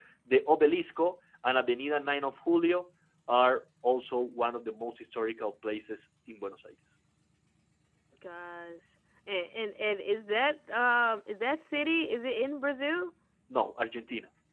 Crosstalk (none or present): none